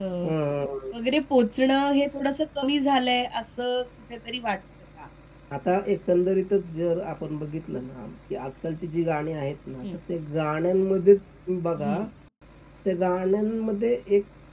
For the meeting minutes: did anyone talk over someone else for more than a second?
No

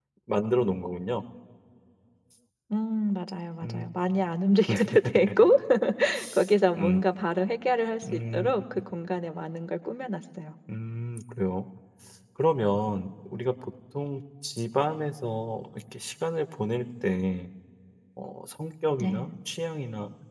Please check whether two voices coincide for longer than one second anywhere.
No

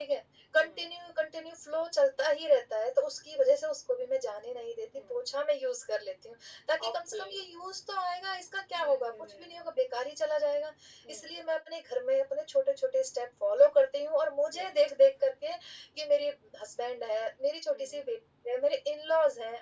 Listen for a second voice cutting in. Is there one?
Yes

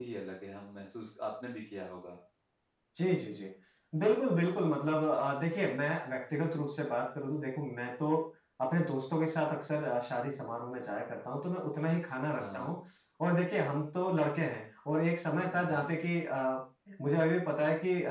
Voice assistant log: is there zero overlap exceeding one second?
Yes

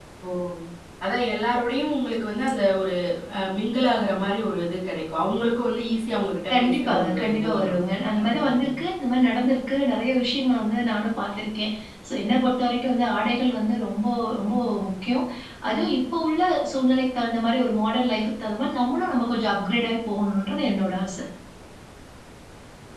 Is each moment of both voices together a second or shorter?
No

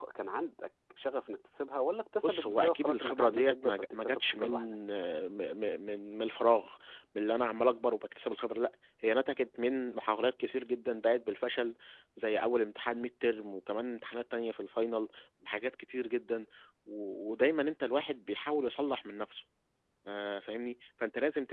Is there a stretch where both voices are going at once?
Yes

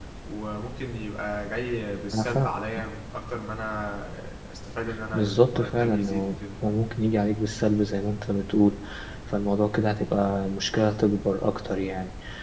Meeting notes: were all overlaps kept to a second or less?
No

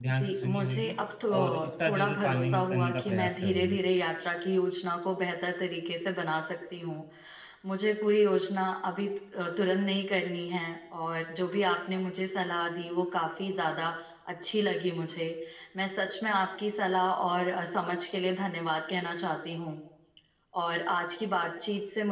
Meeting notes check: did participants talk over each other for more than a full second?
Yes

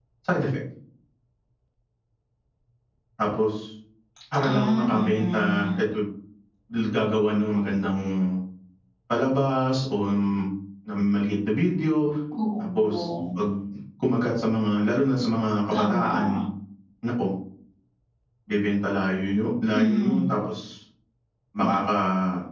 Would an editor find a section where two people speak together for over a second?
Yes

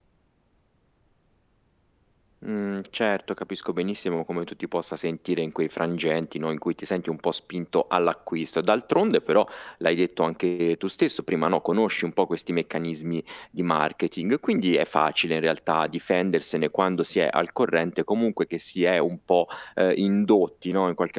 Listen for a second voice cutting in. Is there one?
No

